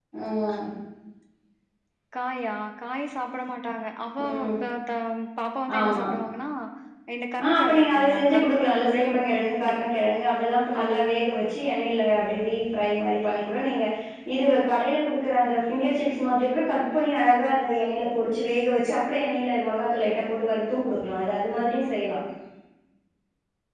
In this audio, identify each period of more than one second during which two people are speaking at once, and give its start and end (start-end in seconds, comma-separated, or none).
7.4-9.7